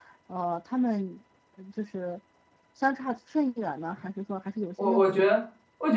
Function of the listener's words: taking over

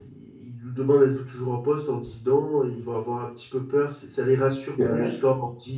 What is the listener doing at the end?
listening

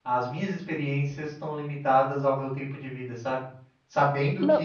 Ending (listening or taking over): listening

